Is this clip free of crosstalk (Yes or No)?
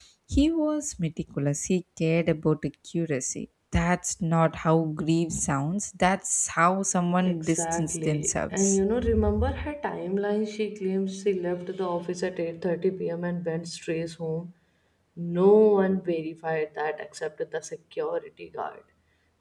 No